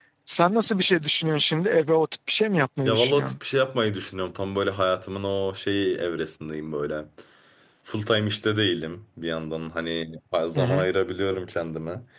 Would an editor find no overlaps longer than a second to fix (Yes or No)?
Yes